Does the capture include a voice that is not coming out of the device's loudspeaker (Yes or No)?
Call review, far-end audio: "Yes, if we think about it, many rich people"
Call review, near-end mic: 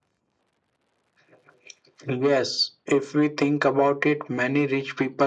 No